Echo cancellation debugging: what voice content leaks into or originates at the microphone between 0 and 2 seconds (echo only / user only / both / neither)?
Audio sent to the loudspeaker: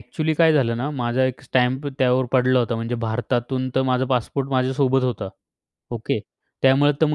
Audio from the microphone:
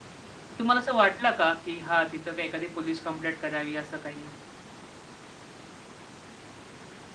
user only